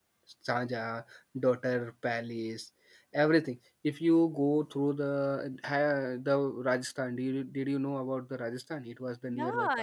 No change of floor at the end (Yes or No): No